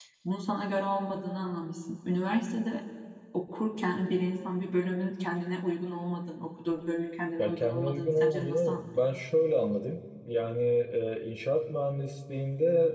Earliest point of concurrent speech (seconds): 7 s

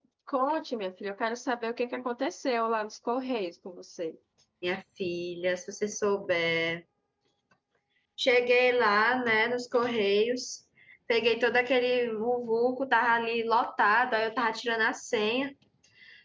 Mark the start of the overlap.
none

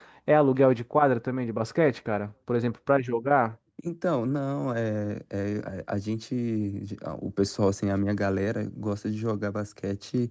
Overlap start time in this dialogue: none

